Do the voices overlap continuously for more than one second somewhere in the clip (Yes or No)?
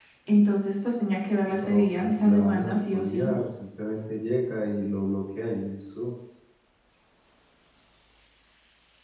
Yes